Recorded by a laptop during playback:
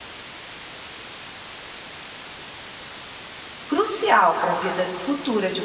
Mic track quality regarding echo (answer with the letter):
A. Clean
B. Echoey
A